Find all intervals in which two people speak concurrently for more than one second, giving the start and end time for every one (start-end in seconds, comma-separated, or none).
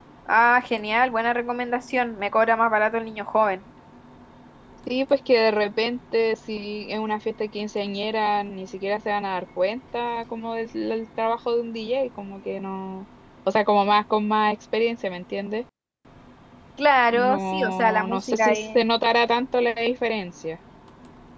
17.1-18.8